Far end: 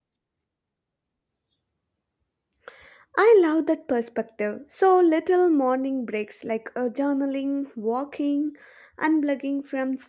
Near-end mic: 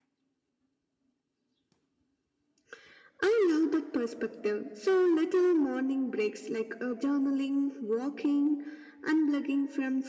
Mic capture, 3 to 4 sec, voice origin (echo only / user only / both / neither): echo only